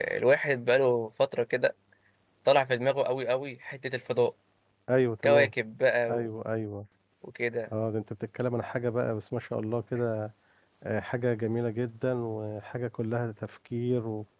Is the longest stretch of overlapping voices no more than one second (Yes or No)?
Yes